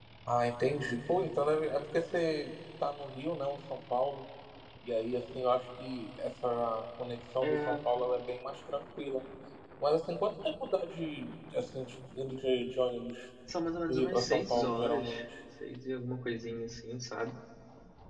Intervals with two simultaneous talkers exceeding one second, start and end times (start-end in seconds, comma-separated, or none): 13.9-15.1